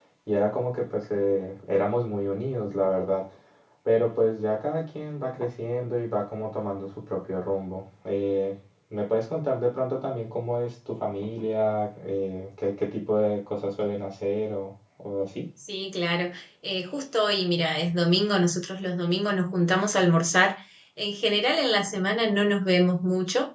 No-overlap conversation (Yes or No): Yes